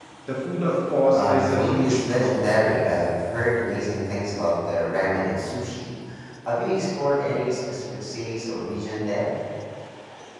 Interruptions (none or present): present